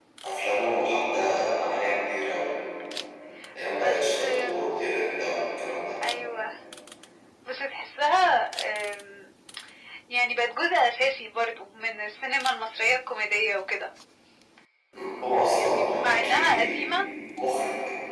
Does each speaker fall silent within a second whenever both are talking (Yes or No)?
No